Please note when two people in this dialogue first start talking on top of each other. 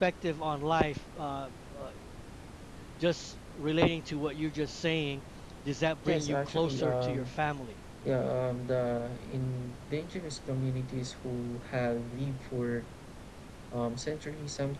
6.0 s

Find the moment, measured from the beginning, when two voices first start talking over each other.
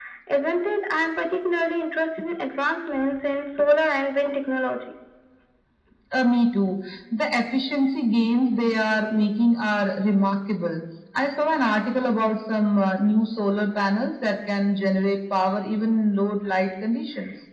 none

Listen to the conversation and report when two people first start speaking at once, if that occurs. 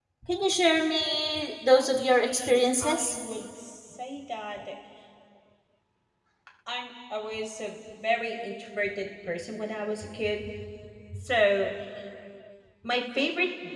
1.8 s

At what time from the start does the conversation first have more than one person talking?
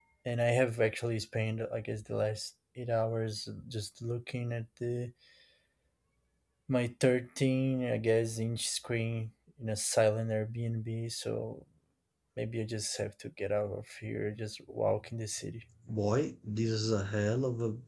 none

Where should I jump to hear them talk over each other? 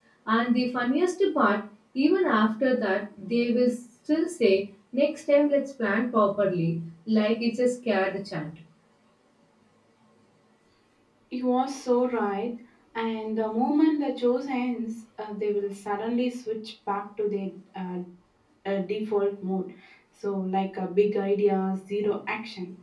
none

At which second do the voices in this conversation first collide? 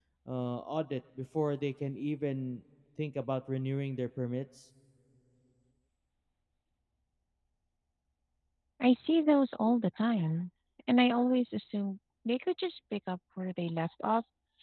none

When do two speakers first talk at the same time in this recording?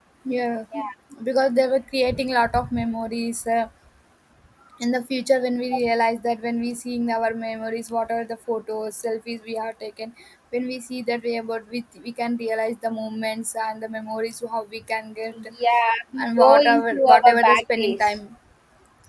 16.2 s

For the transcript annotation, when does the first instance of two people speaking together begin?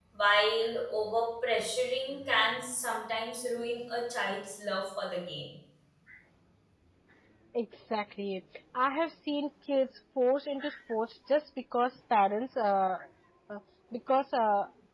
none

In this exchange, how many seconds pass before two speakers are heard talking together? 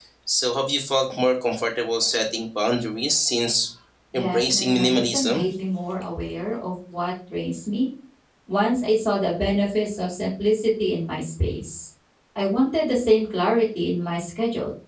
4.1 s

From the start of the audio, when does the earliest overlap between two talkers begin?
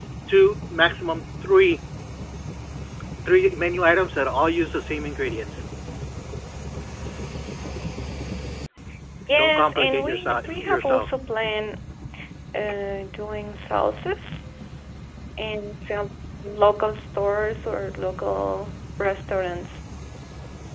9.4 s

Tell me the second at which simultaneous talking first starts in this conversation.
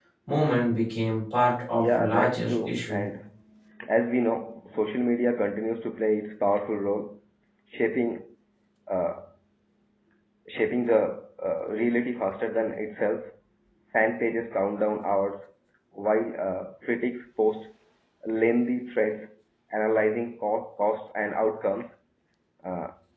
1.7 s

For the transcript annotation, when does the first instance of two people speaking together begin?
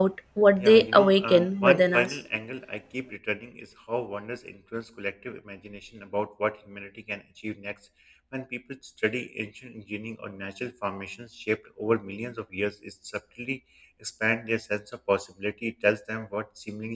0.6 s

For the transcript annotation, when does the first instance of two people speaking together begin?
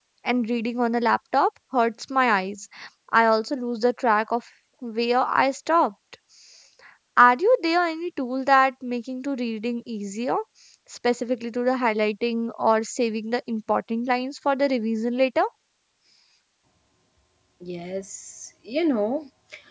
none

